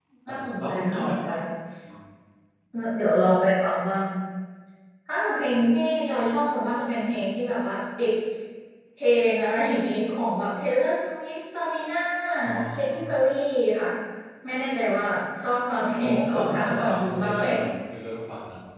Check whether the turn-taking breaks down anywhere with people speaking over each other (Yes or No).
Yes